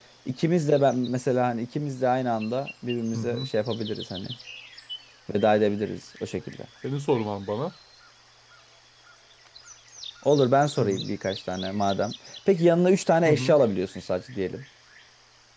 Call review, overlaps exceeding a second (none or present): none